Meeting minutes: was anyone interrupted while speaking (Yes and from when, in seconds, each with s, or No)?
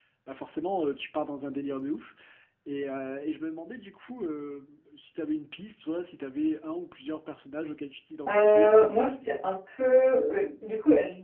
Yes, from 8.3 s